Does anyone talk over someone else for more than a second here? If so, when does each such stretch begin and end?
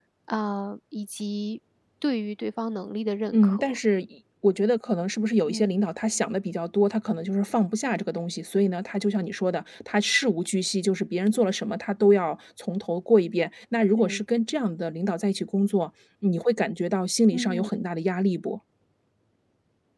none

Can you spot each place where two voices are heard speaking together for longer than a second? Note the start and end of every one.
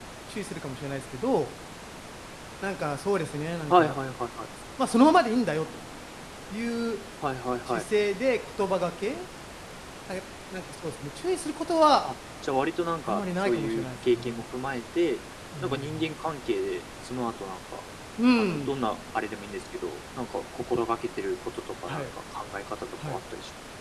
13.1-14.4

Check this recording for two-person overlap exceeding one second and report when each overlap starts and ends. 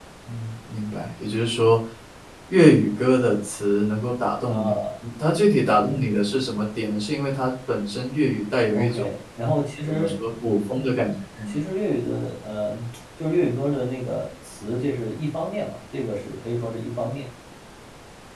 none

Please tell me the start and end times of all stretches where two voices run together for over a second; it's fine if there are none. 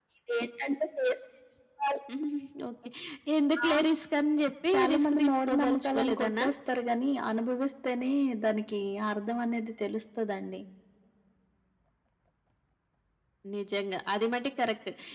4.7-6.5

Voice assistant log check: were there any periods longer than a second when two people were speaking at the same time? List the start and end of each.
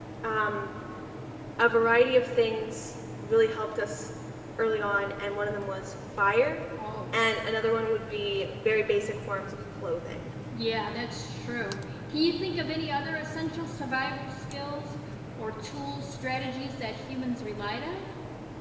none

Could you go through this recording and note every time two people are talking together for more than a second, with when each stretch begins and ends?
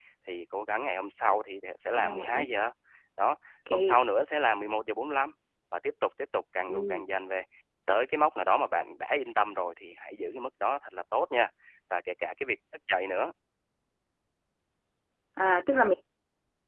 none

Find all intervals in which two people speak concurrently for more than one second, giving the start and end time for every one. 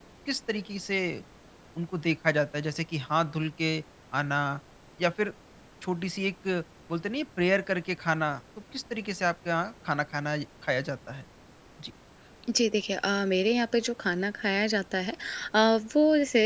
none

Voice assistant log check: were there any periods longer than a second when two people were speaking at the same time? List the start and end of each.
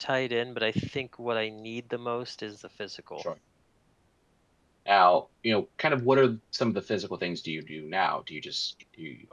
none

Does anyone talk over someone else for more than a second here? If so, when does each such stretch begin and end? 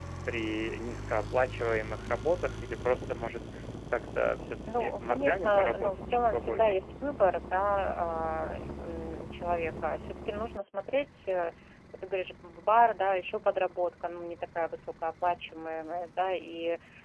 4.8-6.8

